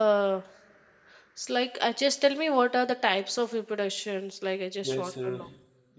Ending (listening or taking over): taking over